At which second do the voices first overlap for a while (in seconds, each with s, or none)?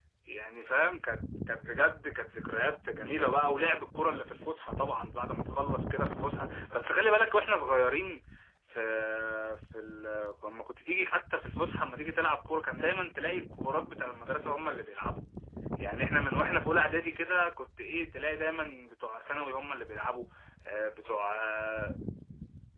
none